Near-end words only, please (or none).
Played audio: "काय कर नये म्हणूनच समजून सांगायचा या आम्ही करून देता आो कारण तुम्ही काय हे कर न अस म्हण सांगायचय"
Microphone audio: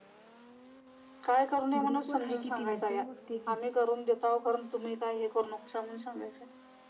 ग्रुपवर हाय कि ती मेसेज बघत्या की.